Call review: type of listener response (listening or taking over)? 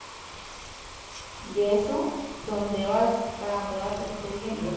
taking over